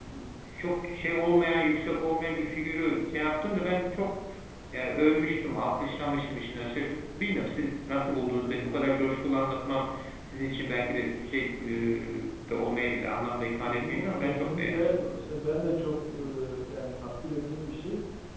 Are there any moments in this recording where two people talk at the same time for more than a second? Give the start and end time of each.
13.6-15.2

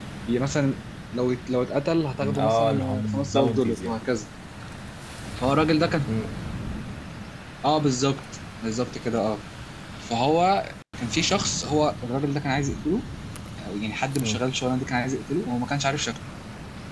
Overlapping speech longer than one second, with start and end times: 2.1-4.0

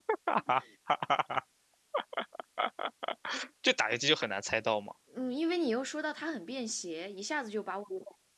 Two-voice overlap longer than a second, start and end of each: none

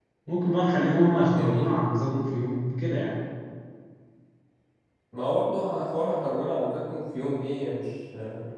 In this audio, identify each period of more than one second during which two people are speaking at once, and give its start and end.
none

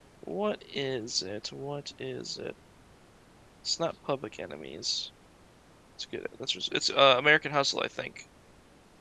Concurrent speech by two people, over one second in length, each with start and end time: none

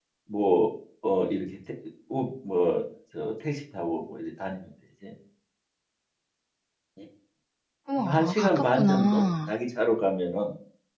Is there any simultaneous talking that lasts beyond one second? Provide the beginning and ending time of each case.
8.0-9.5

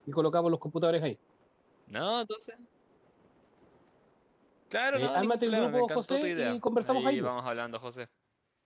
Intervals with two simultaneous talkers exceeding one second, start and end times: 4.9-7.3

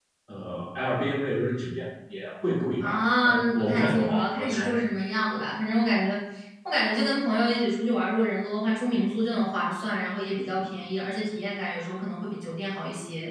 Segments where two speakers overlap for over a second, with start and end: 2.8-4.8

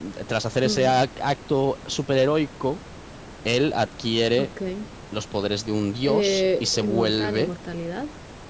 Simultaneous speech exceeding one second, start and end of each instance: 6.0-7.5

